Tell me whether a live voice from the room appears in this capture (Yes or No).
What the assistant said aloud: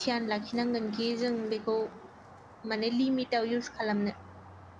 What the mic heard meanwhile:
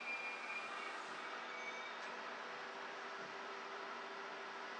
No